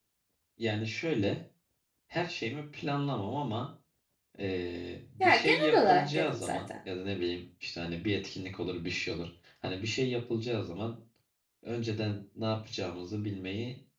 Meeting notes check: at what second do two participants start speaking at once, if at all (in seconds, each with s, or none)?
5.2 s